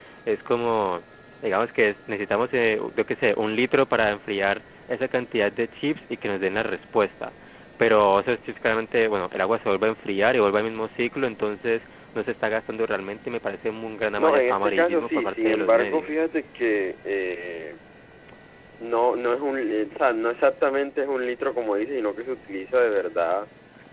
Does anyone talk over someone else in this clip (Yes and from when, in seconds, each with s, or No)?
Yes, from 14.2 s